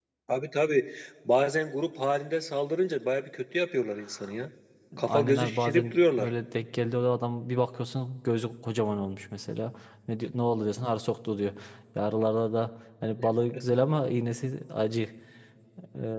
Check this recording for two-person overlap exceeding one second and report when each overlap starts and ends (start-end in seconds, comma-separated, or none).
5.0-6.3